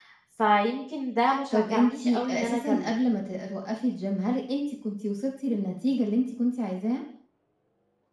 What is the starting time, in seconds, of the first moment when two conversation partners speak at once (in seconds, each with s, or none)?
1.3 s